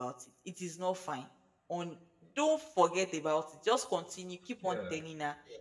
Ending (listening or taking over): listening